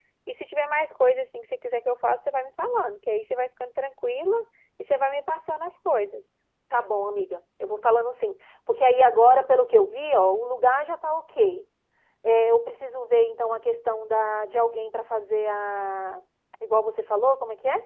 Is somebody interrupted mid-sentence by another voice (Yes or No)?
No